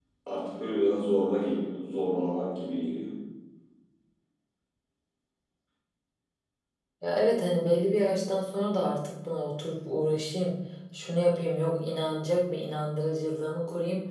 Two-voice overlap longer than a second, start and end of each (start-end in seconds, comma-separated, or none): none